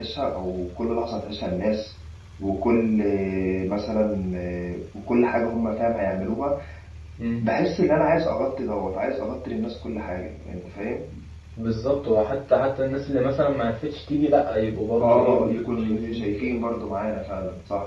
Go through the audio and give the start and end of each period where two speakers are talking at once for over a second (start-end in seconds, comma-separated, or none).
15.0-16.6